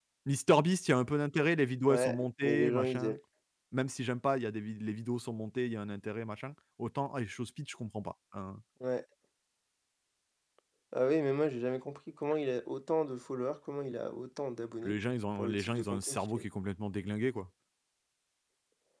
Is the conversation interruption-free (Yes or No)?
No